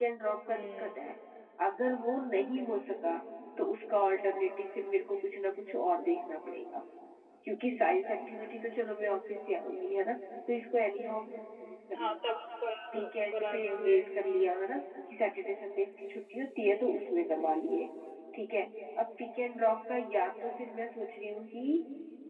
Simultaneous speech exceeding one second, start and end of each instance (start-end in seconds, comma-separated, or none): 13.0-14.5